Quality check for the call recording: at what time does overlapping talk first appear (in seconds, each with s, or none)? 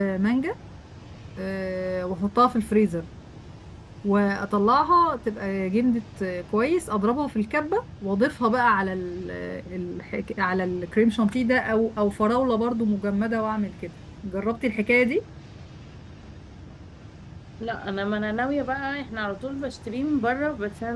none